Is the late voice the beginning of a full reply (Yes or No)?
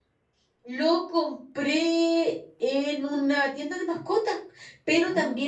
No